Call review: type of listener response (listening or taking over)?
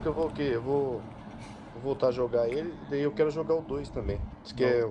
listening